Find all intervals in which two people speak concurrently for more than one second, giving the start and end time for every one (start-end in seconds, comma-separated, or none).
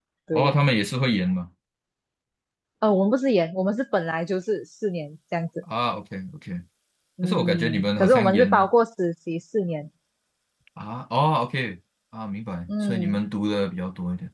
7.2-8.7